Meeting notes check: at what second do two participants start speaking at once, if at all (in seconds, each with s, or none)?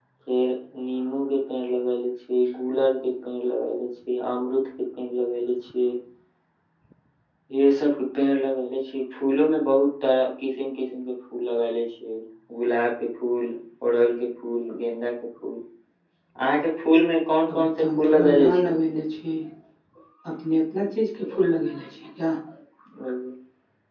17.5 s